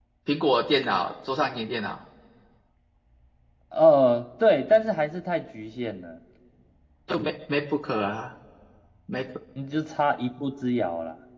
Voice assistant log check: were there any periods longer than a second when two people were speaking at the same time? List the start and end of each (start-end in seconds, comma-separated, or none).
none